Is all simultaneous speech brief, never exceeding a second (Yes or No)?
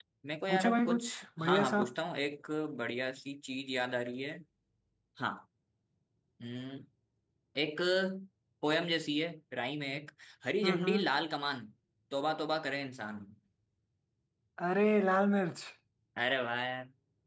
No